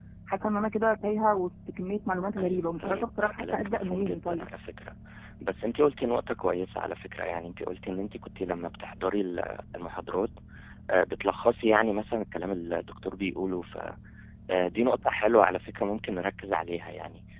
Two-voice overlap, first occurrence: 2.4 s

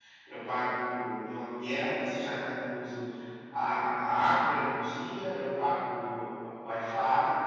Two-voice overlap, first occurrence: none

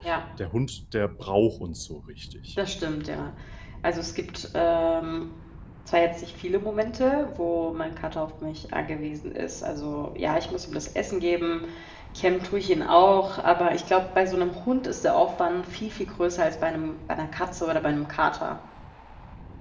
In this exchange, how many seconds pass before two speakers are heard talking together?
none

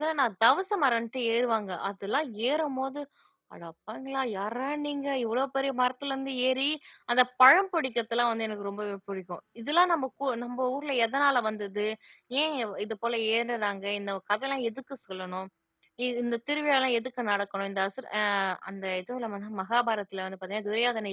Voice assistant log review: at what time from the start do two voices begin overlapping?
none

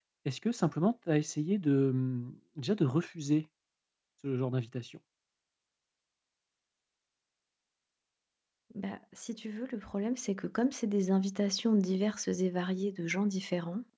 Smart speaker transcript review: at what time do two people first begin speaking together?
none

